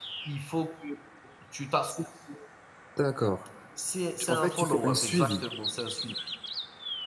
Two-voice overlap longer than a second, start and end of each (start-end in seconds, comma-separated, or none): 4.2-5.4